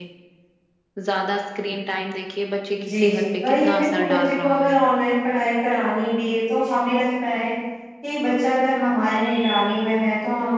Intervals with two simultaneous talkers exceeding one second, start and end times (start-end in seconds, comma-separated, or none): 2.9-4.8